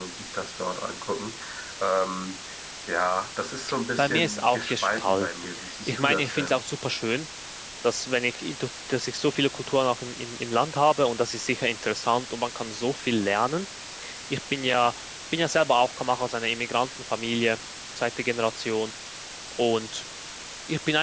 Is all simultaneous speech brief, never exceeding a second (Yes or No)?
No